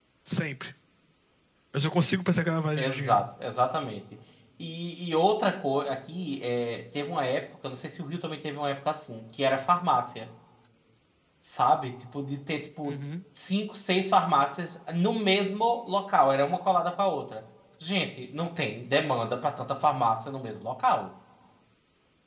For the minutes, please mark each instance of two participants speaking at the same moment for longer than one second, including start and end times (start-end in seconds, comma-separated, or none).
none